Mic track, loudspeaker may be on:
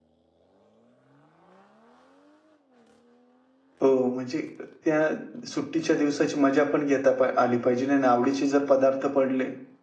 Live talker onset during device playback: 3.8 s

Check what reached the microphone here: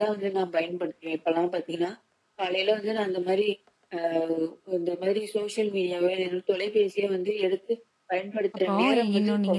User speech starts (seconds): 8.5 s

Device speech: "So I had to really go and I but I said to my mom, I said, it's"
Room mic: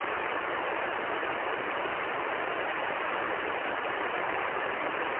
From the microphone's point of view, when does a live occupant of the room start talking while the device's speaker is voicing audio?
none

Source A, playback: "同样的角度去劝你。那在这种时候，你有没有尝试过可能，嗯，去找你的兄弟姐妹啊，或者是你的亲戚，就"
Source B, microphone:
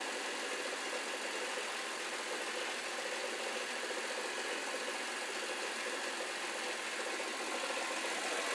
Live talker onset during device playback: none

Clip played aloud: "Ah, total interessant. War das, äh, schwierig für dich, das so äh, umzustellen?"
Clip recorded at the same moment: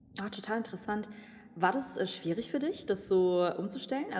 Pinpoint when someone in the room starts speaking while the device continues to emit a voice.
none

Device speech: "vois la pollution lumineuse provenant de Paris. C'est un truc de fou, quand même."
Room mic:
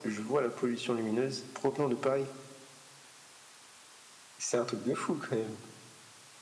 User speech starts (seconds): none

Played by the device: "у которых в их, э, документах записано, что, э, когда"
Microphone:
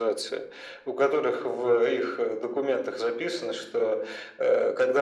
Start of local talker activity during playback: none

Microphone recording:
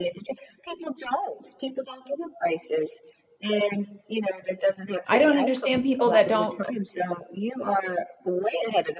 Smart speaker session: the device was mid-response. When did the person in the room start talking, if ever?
5.1 s

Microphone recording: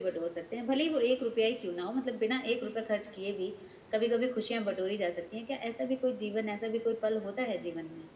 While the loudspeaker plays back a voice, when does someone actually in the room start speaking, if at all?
none

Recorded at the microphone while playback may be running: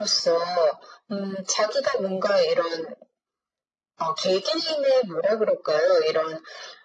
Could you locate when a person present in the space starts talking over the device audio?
none

